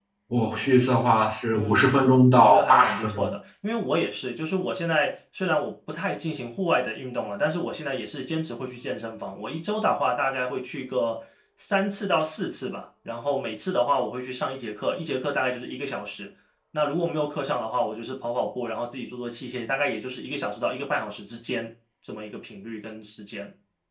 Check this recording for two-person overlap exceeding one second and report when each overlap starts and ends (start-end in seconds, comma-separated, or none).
1.6-3.3